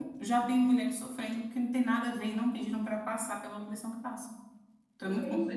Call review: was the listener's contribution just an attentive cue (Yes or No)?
No